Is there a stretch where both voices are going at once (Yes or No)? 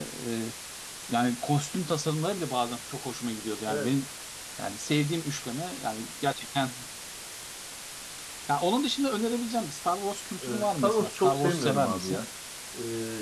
Yes